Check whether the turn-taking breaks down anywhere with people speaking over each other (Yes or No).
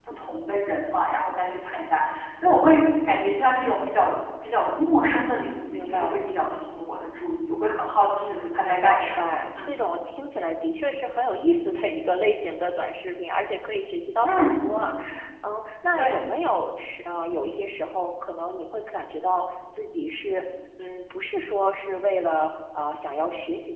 Yes